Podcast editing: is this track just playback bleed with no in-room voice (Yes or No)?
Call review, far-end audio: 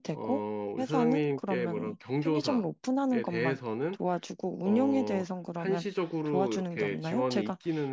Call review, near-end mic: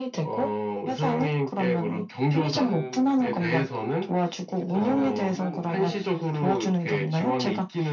No